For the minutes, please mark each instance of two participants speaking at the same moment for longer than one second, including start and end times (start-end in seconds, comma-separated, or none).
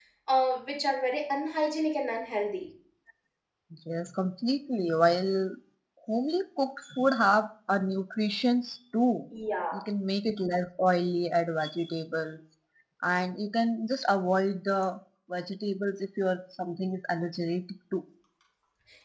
none